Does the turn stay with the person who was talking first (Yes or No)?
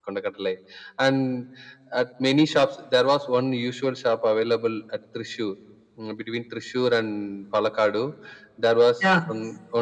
Yes